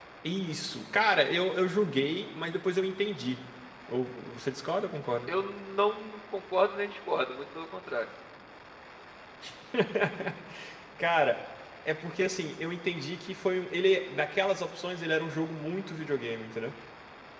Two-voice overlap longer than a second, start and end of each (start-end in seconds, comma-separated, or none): none